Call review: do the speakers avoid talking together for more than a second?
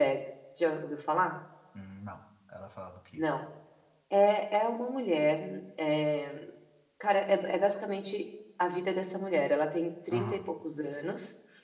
Yes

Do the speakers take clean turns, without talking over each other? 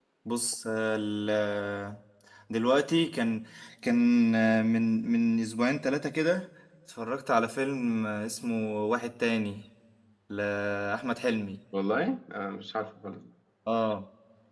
Yes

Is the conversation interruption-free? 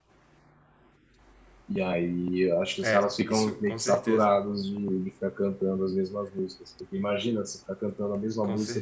No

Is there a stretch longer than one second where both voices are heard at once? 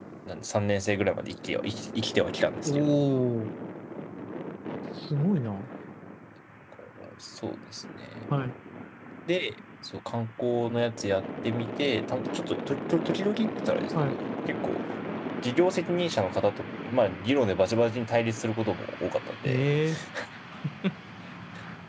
No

